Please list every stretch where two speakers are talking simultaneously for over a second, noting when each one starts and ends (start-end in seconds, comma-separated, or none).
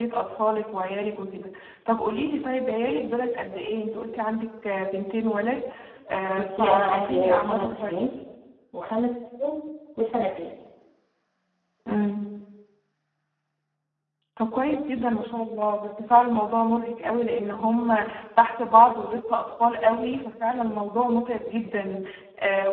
6.3-8.0